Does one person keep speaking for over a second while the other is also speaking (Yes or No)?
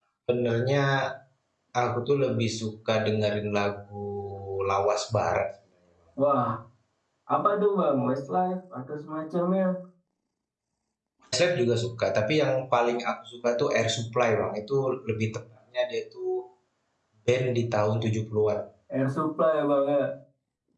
No